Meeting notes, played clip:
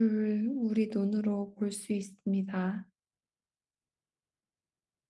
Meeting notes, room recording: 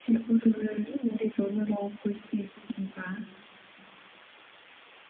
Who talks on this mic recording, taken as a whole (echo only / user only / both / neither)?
echo only